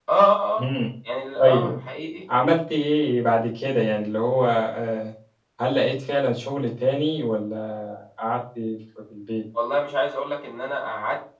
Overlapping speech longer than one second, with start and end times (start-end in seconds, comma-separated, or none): none